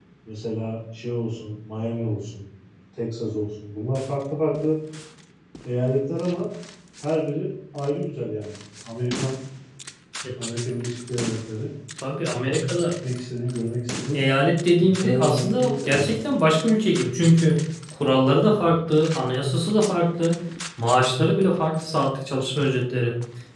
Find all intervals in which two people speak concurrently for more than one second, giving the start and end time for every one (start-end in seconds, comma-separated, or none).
14.8-16.1